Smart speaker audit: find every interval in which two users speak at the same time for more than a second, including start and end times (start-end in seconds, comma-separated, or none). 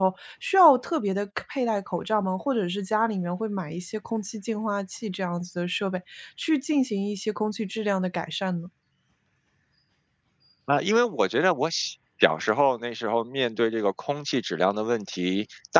none